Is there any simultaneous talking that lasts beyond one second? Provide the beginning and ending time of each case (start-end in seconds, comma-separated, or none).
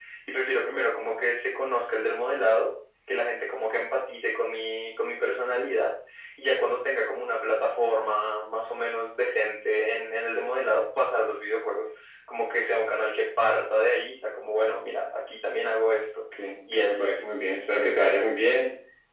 none